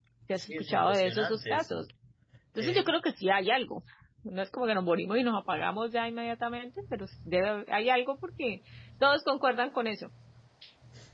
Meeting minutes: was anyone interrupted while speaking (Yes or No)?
Yes